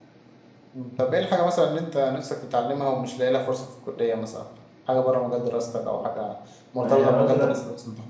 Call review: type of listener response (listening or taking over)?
taking over